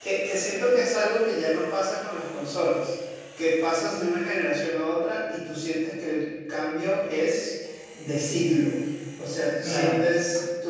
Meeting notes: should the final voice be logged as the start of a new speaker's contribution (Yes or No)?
No